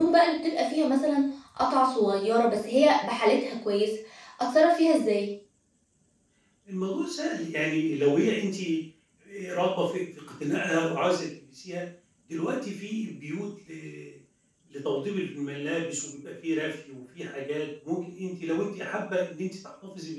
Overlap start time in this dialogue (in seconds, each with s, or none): none